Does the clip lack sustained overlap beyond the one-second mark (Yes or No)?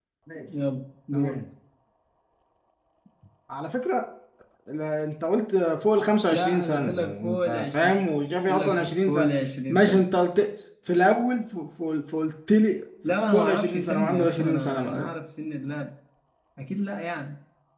No